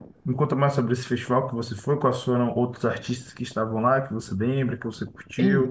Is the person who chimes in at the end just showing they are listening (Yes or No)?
No